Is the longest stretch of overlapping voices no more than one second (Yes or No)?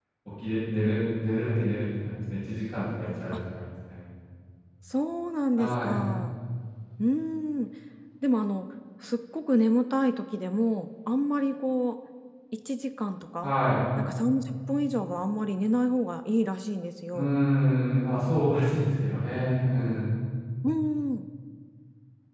Yes